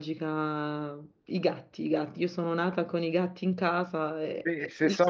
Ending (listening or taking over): taking over